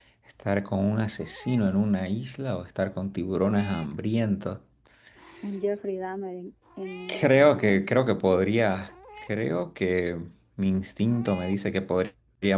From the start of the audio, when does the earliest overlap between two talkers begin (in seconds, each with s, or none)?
7.1 s